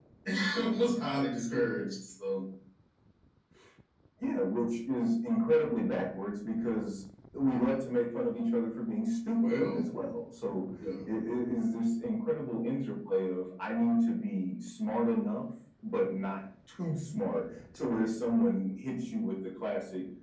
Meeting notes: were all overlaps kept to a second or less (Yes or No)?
Yes